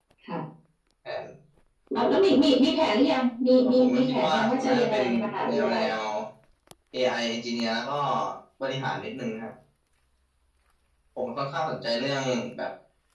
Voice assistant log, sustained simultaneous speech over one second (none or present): present